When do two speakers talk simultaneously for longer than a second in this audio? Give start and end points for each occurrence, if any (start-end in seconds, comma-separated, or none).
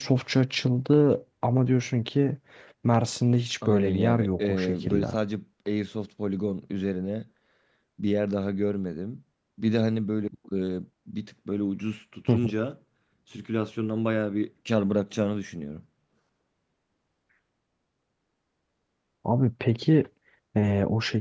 3.6-5.1